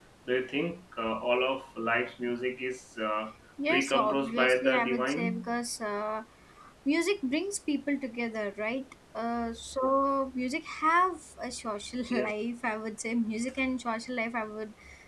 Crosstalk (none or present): present